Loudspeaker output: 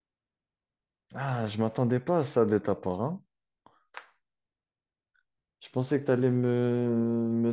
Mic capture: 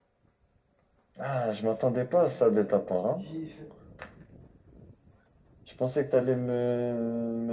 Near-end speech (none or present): present